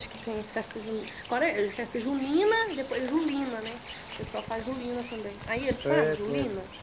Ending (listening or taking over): taking over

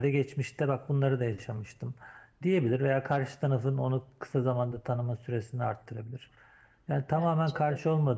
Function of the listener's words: listening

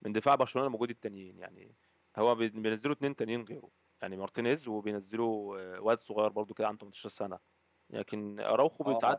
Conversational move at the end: listening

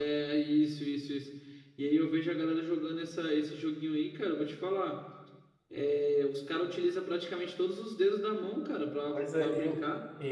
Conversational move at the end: taking over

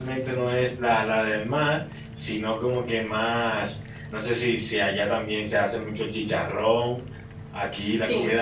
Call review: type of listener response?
listening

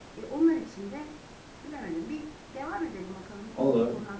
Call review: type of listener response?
taking over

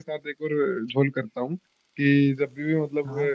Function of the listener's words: listening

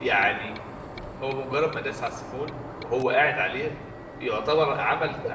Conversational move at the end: listening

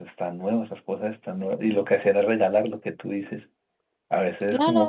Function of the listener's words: listening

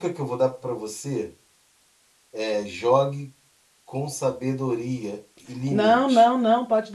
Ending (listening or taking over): taking over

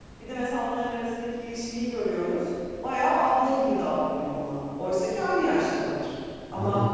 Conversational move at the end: listening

